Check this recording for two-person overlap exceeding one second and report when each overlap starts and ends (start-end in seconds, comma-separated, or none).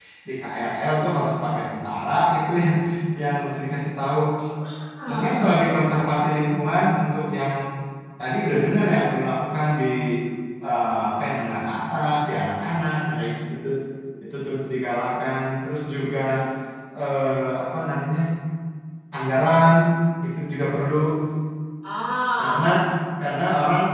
none